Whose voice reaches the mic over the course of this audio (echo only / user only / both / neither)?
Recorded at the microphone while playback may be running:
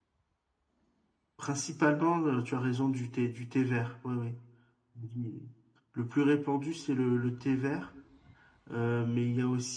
echo only